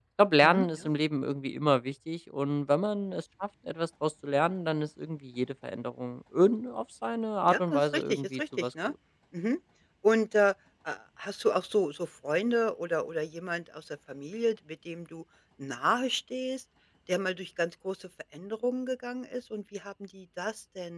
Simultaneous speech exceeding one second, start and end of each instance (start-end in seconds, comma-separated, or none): 7.4-8.9